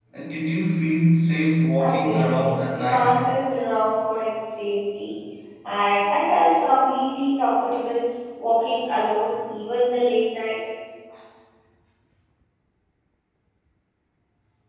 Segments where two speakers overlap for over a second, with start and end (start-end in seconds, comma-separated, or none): 1.8-3.1